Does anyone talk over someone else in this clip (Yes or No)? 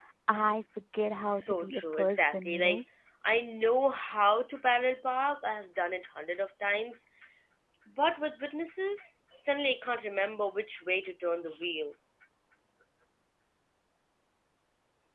Yes